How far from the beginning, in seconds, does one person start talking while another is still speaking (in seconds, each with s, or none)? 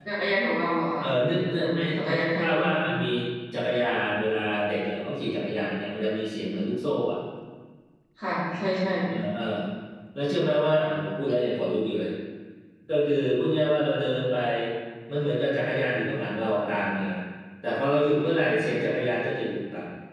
1.6 s